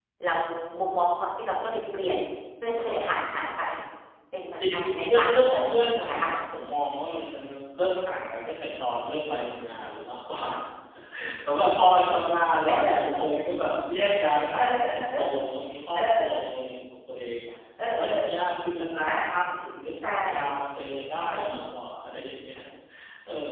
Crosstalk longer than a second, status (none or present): present